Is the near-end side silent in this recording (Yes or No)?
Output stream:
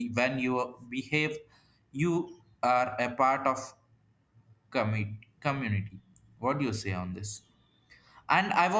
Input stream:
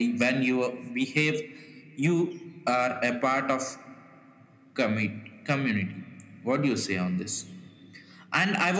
Yes